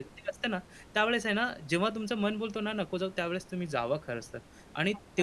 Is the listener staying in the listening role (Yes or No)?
No